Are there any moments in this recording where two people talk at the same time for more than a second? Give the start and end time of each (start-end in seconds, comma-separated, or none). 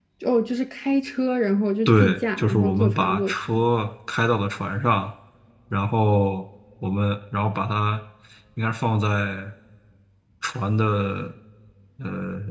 1.9-3.6